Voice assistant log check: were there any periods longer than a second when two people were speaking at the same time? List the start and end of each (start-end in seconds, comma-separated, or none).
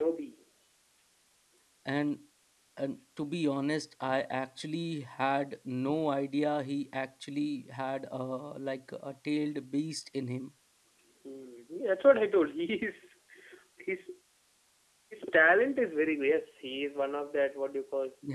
none